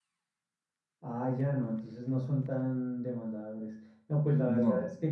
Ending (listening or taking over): listening